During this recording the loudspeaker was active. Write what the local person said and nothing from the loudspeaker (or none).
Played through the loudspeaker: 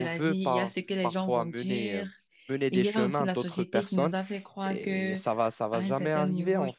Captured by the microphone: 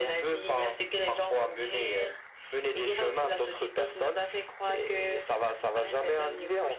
none